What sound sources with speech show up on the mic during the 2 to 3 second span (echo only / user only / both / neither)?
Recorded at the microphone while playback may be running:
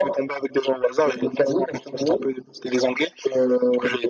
echo only